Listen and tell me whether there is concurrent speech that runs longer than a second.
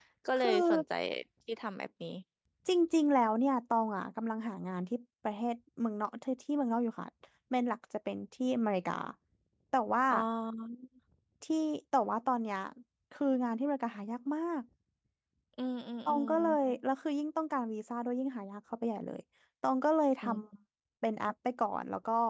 No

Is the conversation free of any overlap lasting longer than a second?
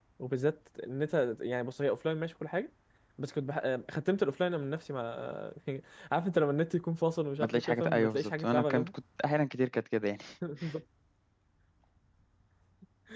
No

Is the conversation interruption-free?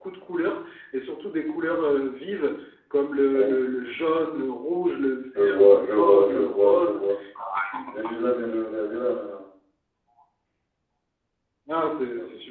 No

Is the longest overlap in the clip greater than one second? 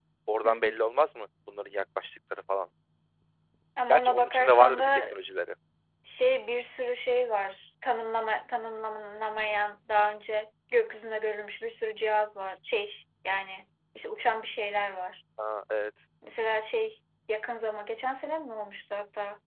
Yes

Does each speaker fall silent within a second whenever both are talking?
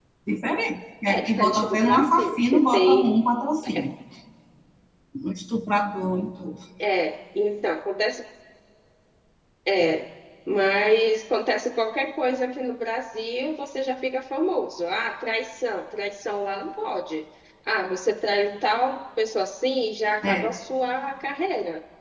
No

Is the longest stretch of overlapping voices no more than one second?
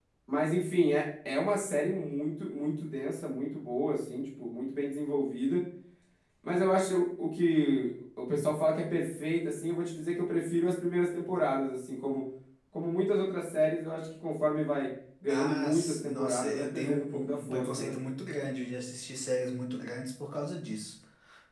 No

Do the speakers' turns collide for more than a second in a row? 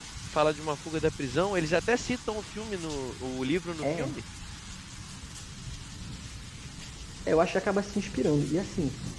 No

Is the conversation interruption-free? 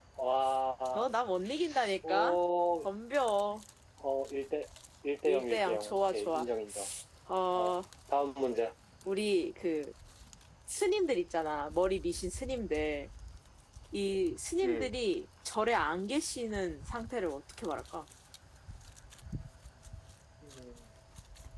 No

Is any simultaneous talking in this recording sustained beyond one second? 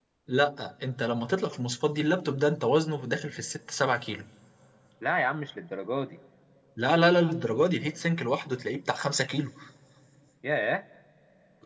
No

